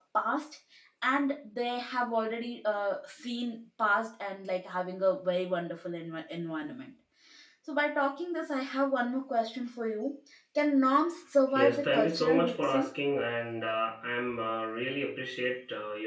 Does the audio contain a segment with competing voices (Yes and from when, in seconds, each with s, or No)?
Yes, from 11.5 s